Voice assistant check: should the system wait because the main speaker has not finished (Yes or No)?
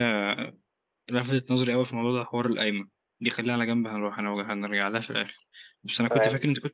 Yes